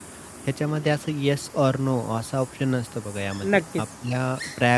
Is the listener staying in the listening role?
Yes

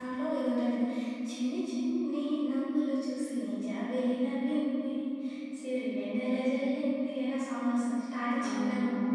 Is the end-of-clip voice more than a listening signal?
Yes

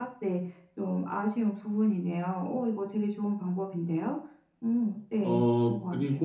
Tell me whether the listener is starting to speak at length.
Yes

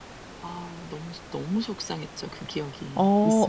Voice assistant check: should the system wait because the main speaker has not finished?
No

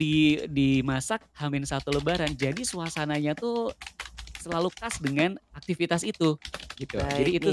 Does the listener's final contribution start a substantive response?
Yes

